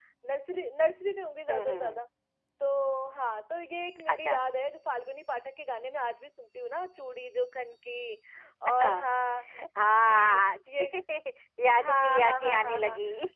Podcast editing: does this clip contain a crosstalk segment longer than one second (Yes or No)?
Yes